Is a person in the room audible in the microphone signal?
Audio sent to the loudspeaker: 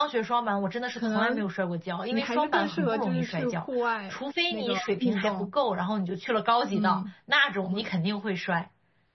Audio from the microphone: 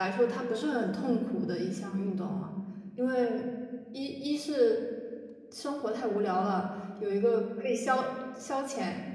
Yes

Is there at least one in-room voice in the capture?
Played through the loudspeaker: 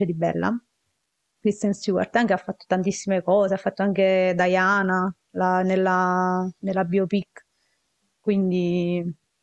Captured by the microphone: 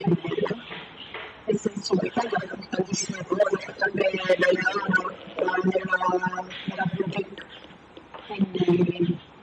No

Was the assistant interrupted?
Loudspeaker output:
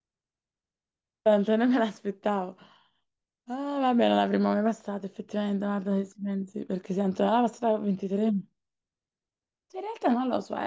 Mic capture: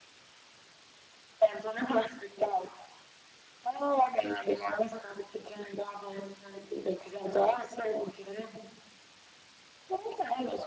No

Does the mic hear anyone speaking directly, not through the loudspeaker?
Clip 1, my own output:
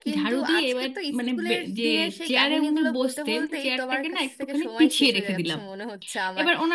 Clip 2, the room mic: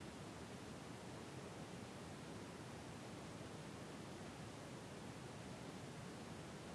No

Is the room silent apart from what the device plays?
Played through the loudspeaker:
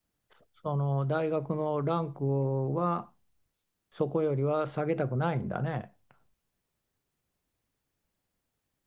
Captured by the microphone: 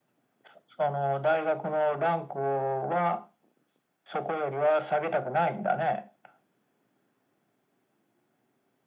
Yes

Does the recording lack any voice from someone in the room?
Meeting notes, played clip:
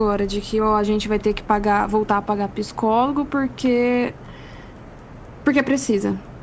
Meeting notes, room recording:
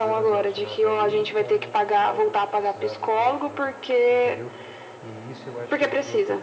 No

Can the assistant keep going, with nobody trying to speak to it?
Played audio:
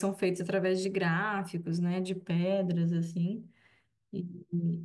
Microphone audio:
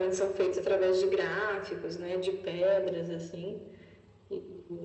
Yes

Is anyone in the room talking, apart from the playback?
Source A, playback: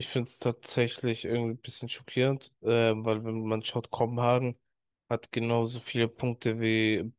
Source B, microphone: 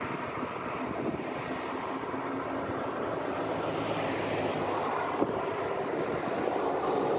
No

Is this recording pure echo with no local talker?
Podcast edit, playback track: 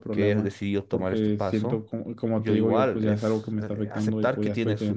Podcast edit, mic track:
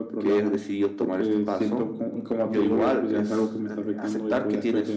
Yes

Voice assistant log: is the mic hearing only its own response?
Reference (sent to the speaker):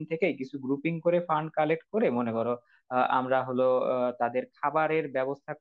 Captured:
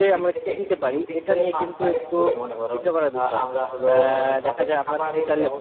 No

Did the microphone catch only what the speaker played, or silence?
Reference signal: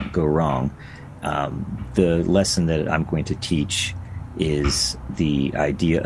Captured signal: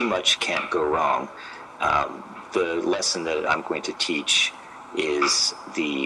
Yes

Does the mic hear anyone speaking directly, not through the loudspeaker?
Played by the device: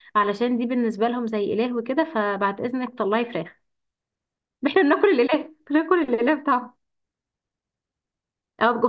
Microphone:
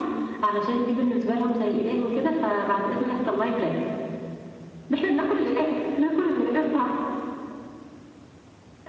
No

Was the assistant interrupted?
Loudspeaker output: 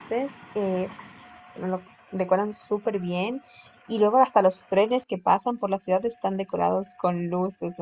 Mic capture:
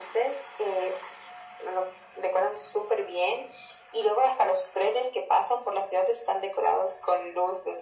No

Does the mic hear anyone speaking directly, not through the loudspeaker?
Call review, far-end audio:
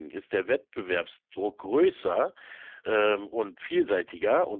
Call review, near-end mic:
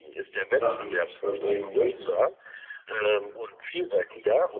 Yes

